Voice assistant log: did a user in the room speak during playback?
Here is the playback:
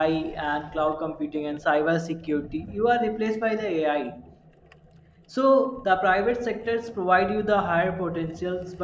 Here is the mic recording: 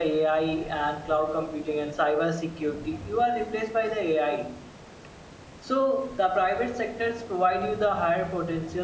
No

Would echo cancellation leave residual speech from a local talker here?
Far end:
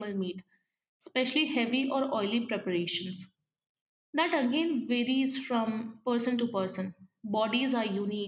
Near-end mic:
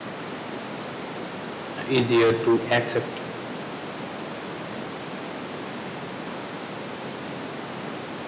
Yes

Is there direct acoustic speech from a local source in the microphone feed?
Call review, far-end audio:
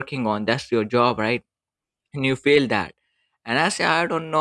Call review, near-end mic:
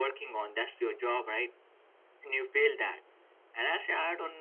No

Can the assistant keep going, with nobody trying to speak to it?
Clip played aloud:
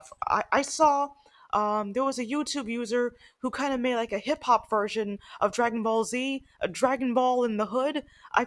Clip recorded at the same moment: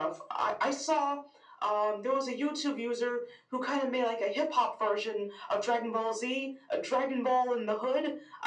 Yes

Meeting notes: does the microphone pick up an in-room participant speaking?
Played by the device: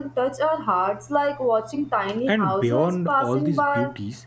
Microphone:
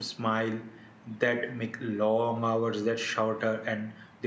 Yes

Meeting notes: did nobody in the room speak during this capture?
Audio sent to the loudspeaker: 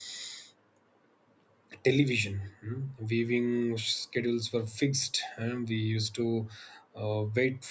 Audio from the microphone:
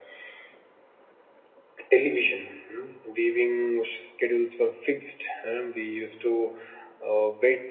Yes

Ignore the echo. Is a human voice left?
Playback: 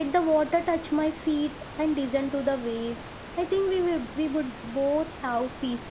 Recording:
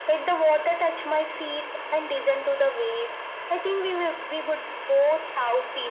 No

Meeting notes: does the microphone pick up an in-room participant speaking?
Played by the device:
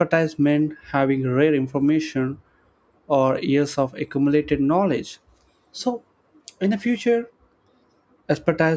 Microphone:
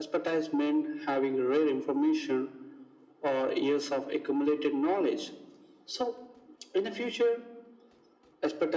No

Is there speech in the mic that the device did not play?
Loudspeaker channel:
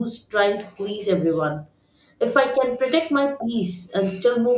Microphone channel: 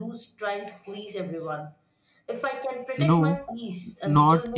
Yes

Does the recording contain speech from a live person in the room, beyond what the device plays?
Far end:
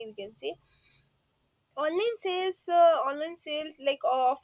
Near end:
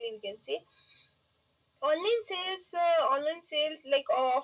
No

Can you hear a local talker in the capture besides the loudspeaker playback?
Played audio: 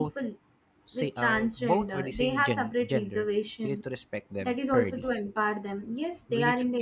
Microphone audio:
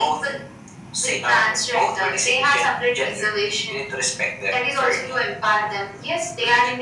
No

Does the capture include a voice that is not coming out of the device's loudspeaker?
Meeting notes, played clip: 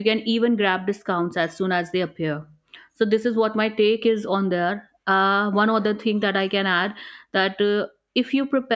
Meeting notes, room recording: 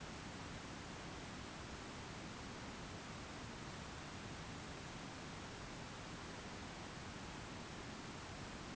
No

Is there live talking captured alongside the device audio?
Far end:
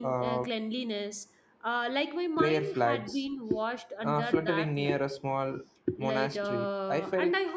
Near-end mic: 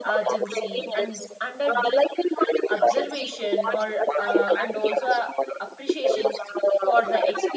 Yes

